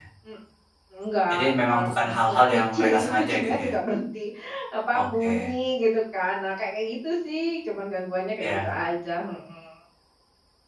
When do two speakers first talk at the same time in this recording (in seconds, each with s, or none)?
1.3 s